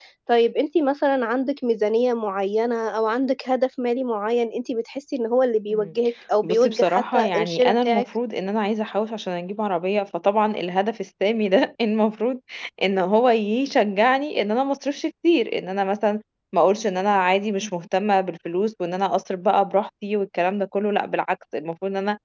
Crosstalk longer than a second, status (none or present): present